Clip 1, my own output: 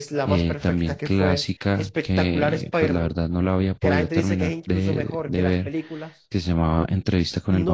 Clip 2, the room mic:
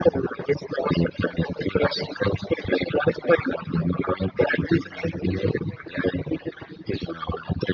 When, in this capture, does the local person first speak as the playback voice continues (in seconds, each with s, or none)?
none